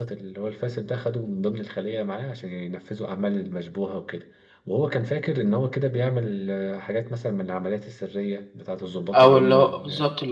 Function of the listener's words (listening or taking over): taking over